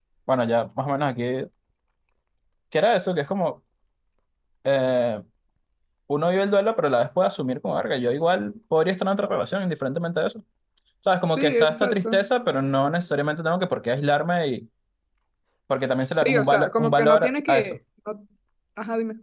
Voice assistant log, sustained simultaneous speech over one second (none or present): present